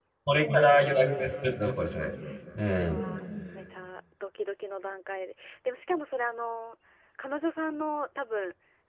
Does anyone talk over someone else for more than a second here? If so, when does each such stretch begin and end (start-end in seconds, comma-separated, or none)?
none